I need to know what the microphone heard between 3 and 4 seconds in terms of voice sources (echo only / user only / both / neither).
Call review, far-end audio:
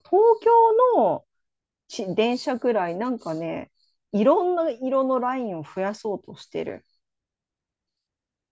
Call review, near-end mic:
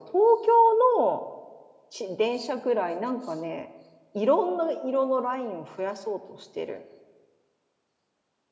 echo only